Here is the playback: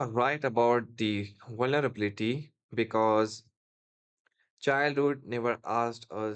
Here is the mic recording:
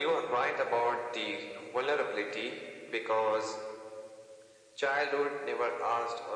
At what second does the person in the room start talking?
none

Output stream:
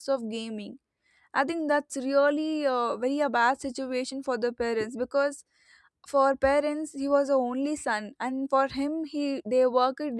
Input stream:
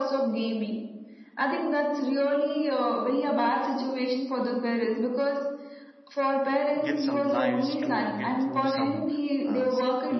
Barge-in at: 6.8 s

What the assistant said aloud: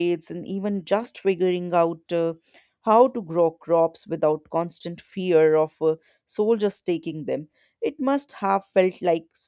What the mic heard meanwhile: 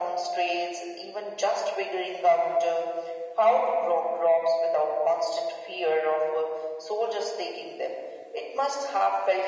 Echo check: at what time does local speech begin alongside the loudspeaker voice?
none

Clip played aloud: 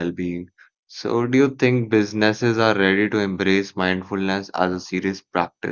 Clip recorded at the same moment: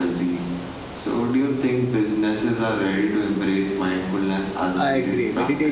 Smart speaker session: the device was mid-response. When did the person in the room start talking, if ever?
4.7 s

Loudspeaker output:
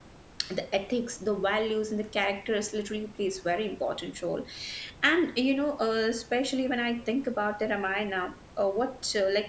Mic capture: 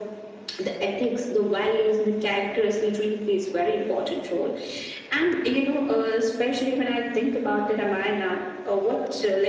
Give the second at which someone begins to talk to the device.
none

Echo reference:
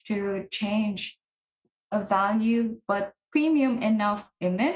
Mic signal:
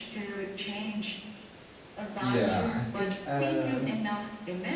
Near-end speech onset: 2.2 s

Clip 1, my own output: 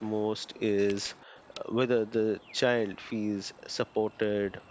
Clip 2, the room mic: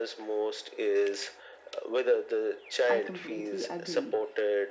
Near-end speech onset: 2.9 s

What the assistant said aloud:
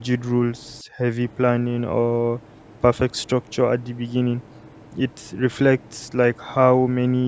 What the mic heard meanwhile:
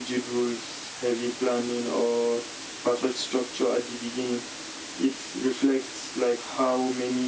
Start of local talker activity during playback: none

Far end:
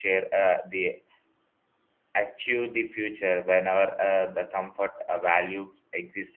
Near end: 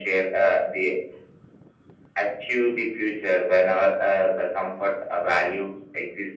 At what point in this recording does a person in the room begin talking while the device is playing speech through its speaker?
none

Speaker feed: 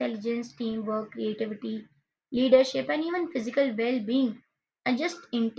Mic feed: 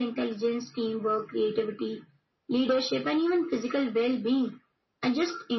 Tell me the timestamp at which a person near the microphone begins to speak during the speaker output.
none

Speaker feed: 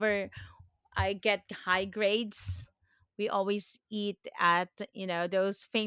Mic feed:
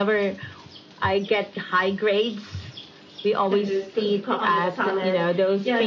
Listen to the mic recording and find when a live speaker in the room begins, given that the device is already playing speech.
3.5 s

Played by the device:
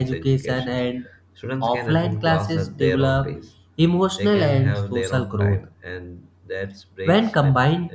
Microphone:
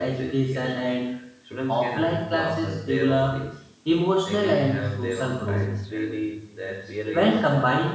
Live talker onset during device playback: 5.5 s

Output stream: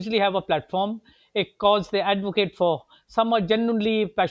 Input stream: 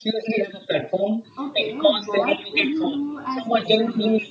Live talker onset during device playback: 1.4 s

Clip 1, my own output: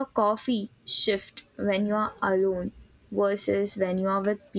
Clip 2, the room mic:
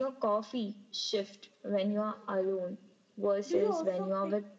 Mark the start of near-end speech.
3.5 s

